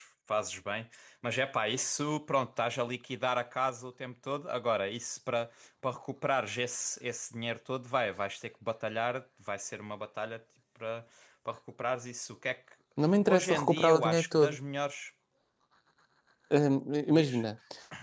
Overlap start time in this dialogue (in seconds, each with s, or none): 13.3 s